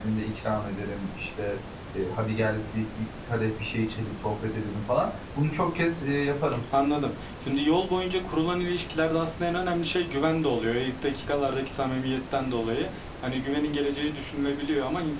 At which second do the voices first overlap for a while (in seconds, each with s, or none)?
none